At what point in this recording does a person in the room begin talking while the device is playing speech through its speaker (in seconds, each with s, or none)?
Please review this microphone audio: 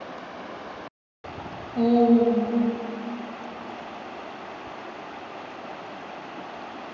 1.8 s